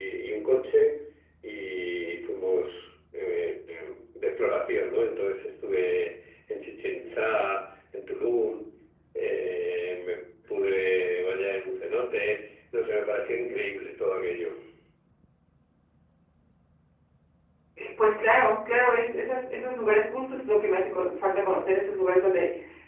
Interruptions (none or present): none